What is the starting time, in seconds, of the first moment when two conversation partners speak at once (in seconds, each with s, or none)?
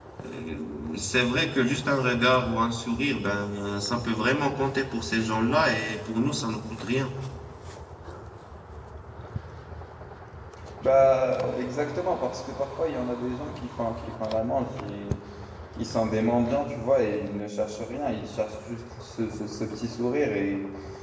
none